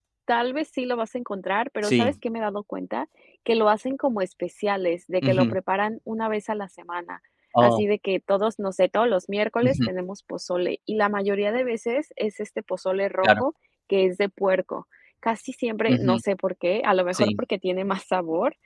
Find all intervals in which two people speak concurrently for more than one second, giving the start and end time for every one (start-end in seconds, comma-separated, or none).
none